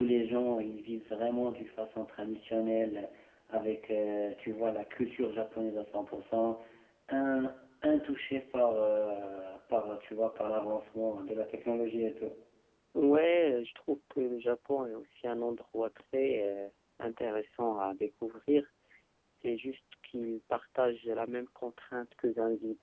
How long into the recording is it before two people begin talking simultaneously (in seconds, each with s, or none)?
none